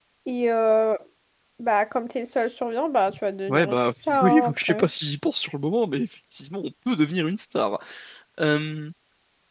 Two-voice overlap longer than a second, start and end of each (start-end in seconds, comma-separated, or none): 3.5-4.8